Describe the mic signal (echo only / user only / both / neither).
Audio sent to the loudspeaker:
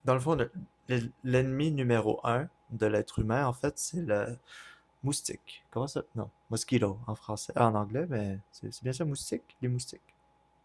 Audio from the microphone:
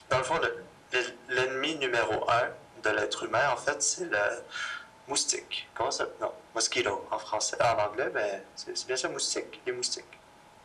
echo only